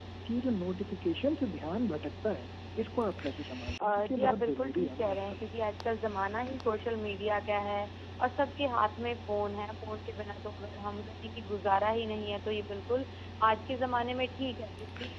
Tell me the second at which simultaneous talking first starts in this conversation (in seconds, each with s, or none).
3.8 s